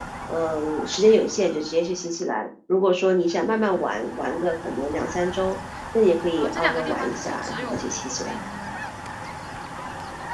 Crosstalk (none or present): present